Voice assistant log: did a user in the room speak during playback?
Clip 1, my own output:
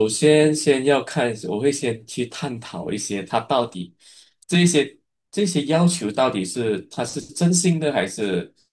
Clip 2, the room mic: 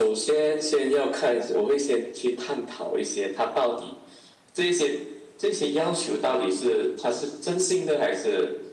No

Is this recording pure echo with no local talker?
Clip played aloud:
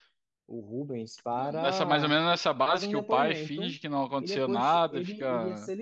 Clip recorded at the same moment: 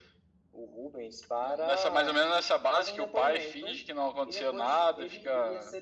Yes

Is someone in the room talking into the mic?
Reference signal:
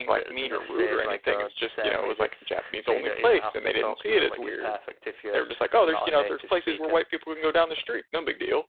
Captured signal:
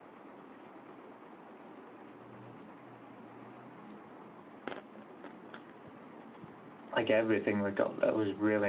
Yes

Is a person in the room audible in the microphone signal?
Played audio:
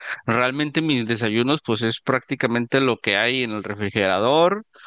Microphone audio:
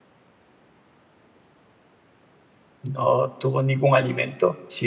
Yes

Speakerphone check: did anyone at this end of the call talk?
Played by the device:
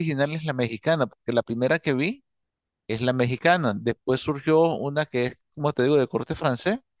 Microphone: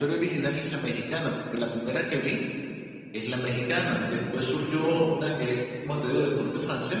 No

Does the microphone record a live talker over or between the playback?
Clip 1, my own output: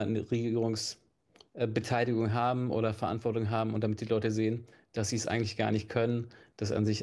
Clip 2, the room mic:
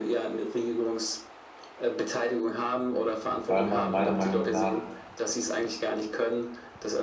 Yes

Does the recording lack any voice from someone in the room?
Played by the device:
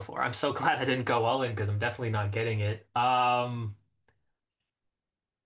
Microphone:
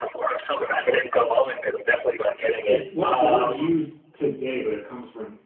No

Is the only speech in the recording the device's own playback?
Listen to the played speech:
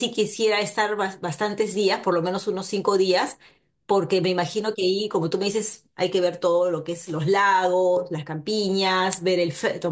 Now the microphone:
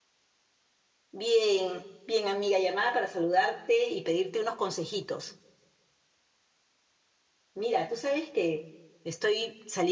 No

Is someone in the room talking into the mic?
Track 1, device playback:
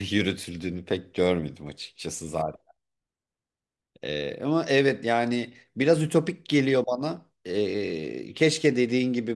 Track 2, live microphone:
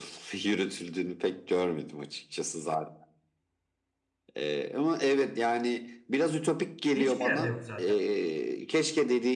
Yes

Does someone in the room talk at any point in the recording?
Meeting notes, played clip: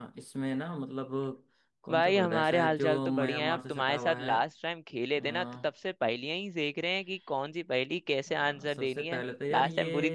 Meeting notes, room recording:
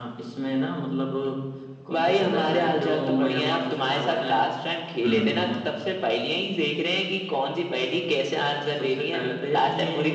Yes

